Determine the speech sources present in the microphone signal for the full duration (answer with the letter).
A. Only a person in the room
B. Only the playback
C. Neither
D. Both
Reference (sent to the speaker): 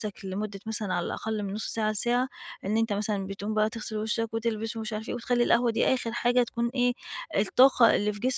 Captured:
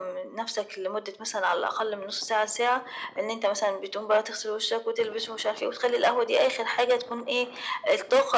B